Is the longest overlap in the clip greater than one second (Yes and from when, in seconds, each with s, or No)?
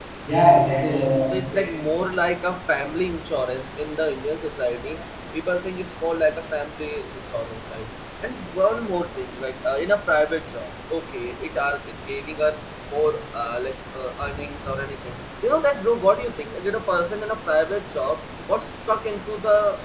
No